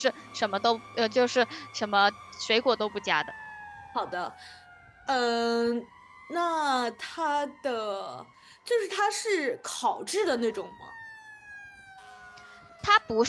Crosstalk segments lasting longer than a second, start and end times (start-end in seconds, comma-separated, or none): none